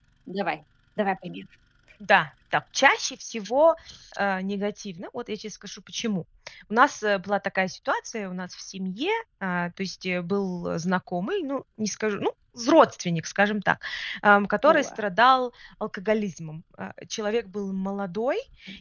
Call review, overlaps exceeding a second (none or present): none